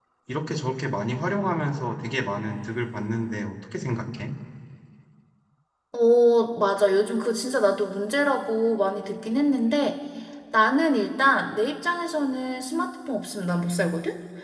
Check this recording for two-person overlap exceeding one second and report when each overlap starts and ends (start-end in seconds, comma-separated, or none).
none